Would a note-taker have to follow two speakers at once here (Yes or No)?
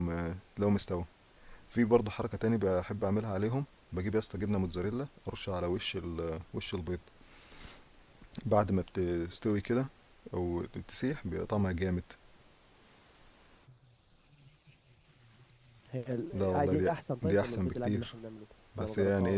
Yes